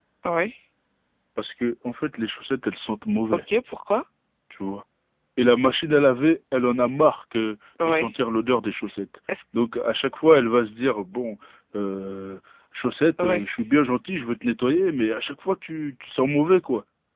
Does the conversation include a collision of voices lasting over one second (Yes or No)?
No